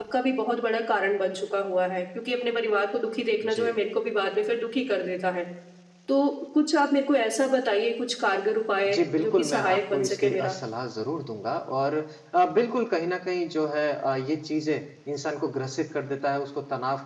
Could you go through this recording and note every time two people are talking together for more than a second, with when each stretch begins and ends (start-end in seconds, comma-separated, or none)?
8.8-10.6